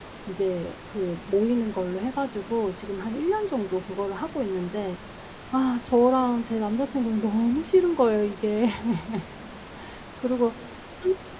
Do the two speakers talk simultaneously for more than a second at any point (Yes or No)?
No